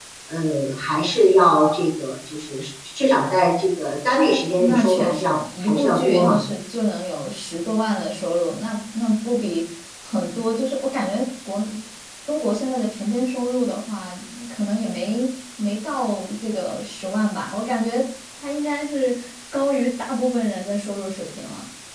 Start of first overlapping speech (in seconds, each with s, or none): 4.6 s